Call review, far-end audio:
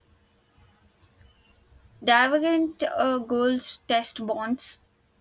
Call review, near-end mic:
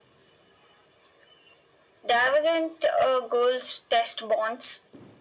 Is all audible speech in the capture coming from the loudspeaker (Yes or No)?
Yes